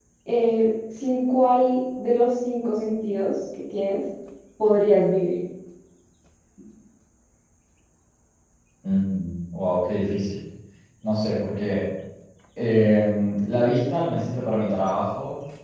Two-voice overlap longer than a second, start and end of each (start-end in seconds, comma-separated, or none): none